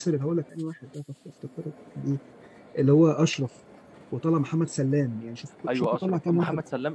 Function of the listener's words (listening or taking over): taking over